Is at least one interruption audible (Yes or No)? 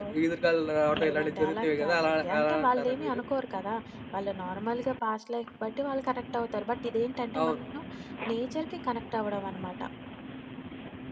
Yes